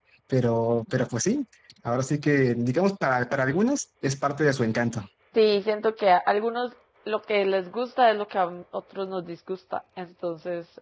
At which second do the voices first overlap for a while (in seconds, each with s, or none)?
none